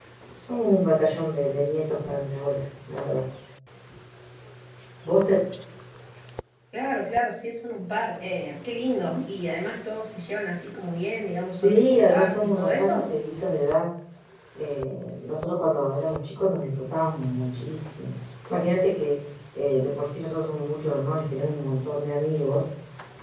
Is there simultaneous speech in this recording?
Yes, from 11.5 s

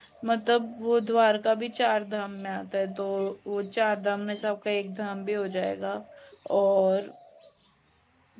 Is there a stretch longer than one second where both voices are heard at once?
No

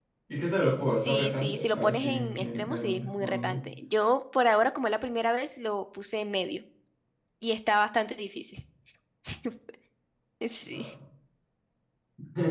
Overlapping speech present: Yes, from 1.0 s

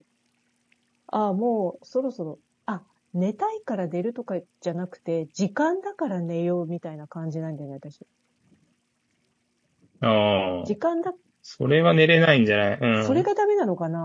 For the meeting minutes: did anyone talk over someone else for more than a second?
No

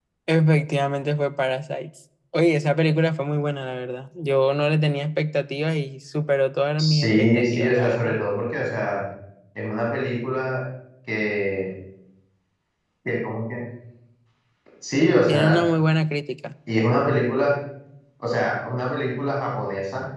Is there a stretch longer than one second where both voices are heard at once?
Yes, from 6.8 s

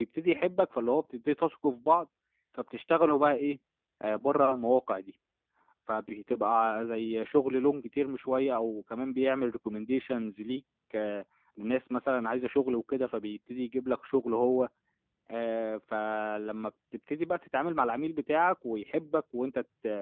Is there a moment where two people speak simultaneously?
No

